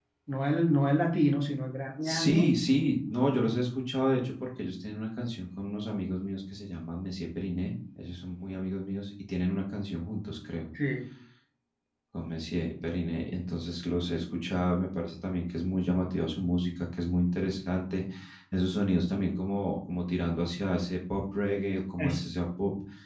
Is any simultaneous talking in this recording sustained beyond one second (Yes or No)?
No